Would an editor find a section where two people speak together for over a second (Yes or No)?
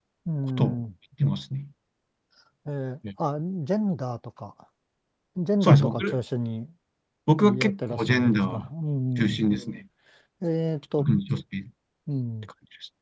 Yes